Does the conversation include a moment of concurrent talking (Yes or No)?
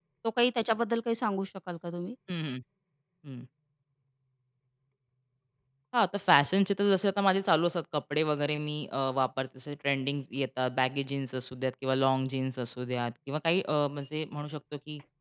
No